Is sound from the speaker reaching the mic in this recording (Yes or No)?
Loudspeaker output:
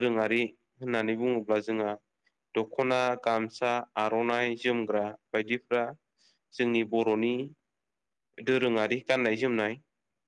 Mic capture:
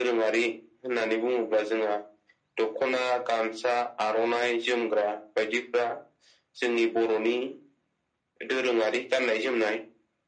Yes